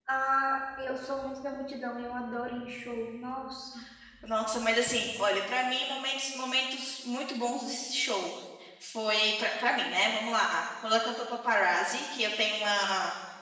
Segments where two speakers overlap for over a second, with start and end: none

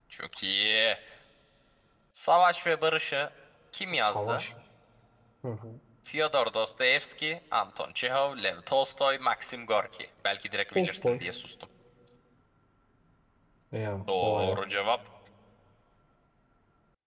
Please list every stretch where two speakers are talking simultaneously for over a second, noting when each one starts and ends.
none

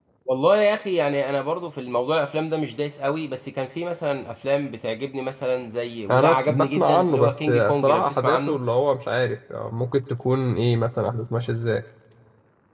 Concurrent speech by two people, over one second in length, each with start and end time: 6.1-8.6

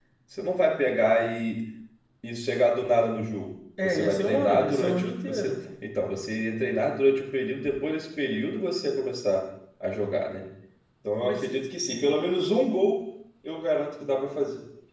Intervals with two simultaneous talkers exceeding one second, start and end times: 3.8-5.6

